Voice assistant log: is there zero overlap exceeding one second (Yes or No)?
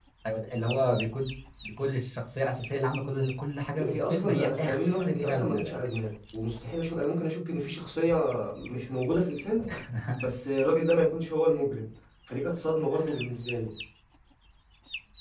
No